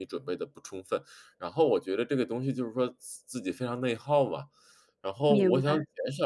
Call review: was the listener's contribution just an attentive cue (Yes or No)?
Yes